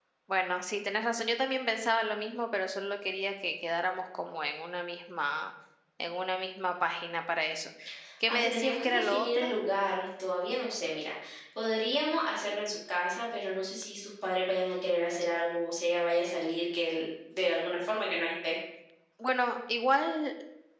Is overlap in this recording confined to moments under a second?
No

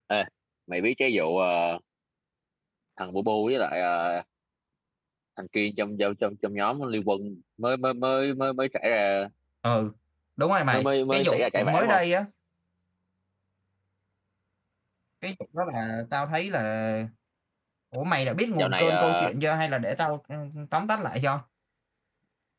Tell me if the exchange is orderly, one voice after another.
No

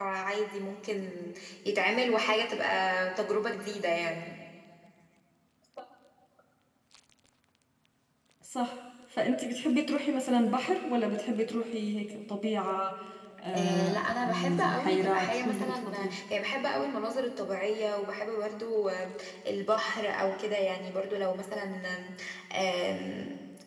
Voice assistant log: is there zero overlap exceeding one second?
No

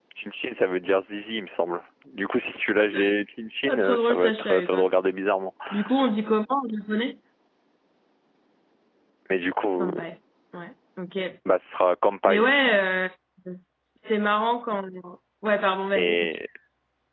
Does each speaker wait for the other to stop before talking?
No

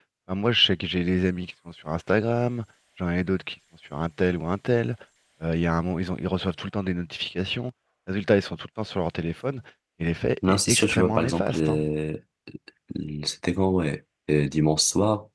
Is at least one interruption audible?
Yes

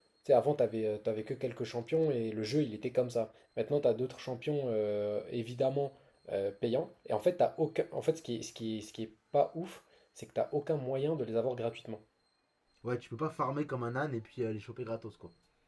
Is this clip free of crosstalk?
Yes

